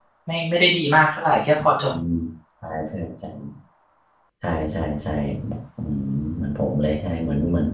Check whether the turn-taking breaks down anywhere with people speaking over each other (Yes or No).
No